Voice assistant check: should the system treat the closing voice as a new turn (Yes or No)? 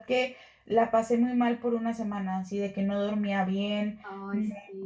No